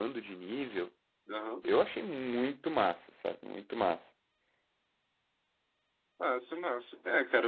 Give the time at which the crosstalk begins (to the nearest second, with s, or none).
none